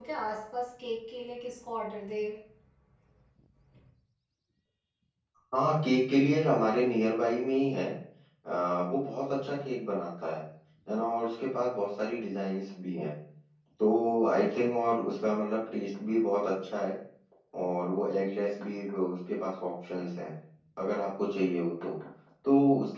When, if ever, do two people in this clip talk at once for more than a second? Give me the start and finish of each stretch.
none

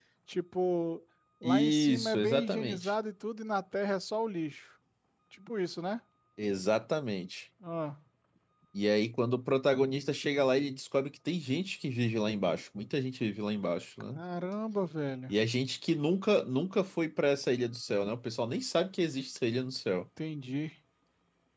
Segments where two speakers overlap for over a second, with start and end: 1.4-2.9

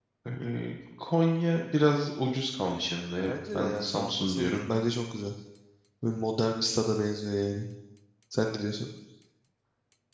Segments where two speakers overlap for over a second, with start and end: 3.3-4.5

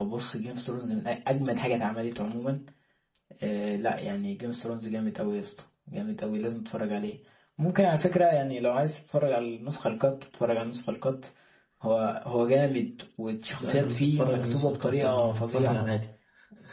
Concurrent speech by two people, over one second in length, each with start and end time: 13.6-15.8

